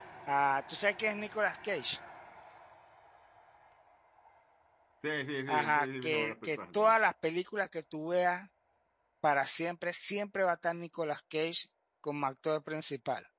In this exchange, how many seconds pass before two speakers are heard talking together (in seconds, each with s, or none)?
5.5 s